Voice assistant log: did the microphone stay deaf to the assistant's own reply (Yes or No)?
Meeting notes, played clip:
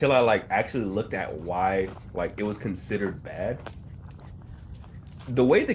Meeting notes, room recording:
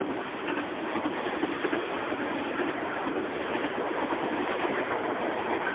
Yes